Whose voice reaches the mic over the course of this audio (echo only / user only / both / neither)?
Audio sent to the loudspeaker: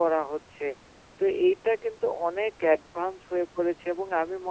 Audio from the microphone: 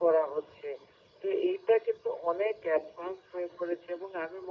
echo only